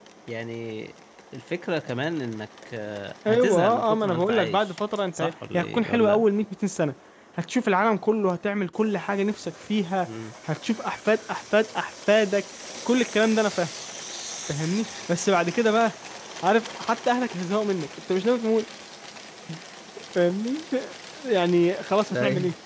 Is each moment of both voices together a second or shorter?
No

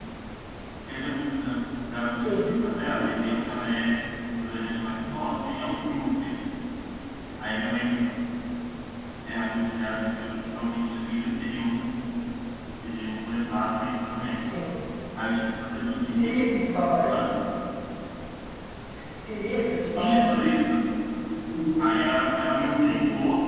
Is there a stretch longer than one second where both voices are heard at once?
No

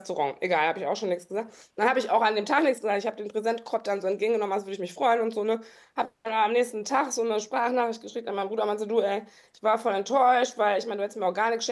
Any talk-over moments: No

